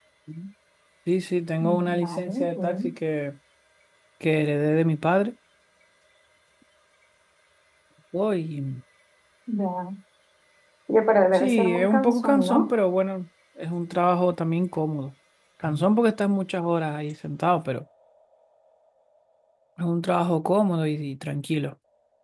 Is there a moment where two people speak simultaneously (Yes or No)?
Yes